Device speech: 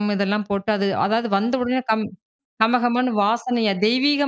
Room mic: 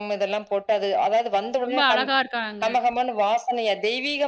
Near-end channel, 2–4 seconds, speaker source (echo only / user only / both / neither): both